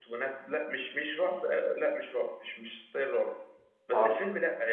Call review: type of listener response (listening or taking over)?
listening